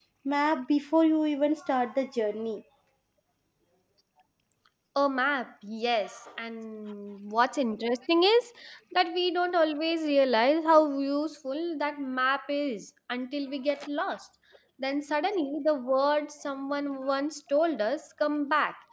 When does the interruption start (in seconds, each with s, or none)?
none